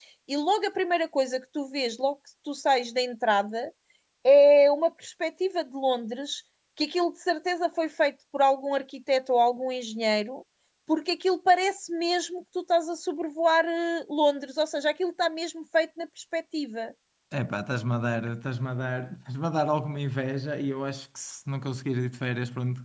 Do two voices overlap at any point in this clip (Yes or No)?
No